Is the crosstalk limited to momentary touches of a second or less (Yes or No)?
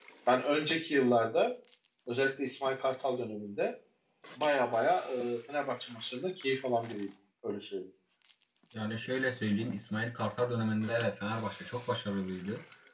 Yes